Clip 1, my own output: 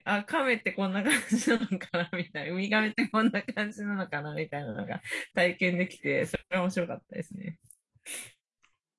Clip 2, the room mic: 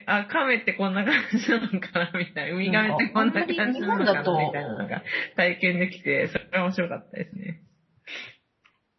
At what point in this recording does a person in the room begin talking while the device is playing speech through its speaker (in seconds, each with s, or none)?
2.6 s